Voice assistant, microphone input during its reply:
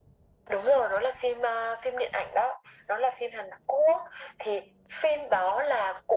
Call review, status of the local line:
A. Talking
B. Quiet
B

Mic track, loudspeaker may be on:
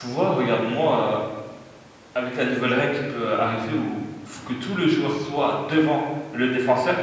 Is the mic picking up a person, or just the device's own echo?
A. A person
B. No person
A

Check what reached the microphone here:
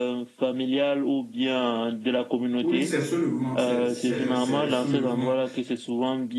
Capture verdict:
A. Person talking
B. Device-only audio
A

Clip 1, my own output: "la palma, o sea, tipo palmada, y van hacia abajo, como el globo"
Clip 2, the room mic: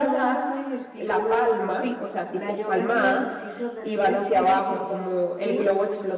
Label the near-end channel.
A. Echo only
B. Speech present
B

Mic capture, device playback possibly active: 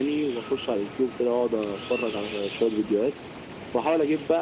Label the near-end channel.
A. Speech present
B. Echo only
B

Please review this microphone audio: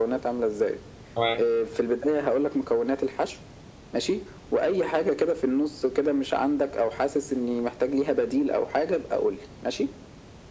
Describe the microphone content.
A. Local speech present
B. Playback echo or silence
A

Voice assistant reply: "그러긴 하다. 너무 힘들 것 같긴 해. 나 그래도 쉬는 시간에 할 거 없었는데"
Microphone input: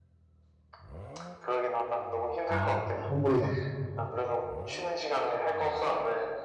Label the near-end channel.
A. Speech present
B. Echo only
A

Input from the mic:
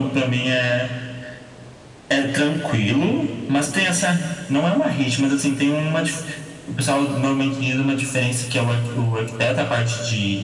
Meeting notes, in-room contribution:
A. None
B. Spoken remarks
A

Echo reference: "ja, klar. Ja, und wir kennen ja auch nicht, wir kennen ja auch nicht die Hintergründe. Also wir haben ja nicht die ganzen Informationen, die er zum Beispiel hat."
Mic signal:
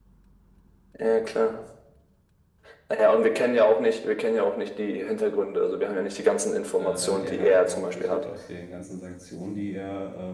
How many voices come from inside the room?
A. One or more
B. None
A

